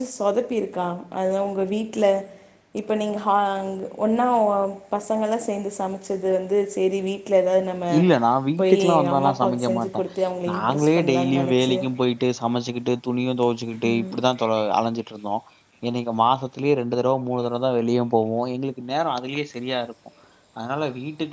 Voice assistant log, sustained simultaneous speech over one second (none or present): present